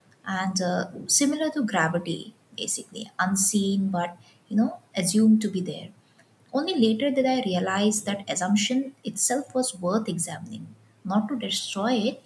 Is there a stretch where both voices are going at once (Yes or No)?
No